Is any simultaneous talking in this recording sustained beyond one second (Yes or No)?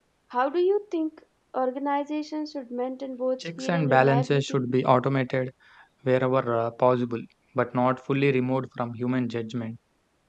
Yes